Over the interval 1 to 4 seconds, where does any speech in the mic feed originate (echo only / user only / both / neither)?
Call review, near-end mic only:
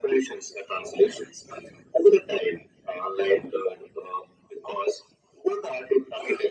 echo only